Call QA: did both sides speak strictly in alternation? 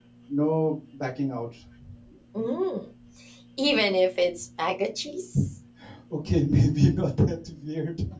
Yes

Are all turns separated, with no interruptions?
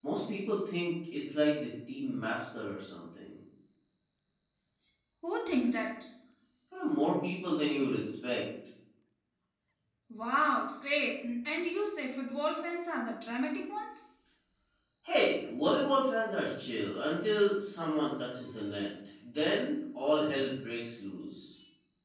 Yes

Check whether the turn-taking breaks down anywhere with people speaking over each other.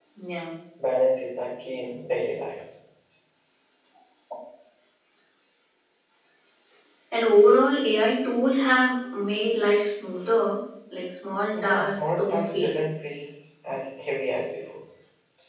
Yes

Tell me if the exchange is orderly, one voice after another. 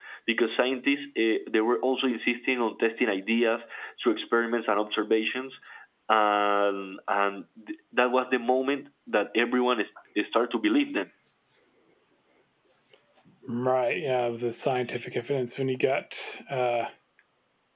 Yes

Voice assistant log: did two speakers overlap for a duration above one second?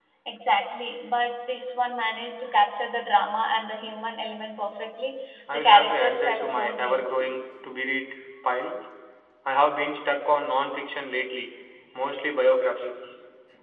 Yes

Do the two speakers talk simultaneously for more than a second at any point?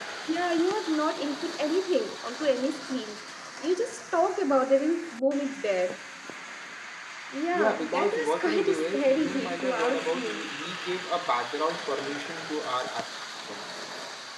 Yes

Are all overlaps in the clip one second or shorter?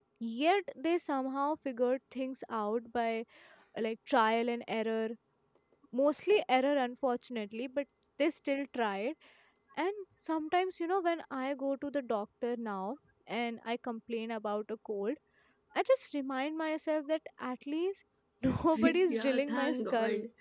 No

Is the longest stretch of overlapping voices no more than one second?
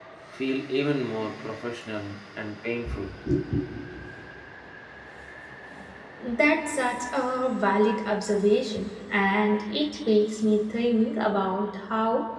Yes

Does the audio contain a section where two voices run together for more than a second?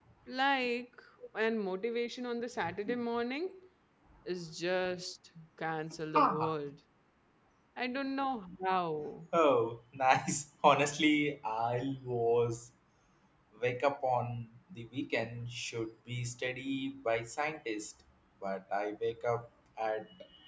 No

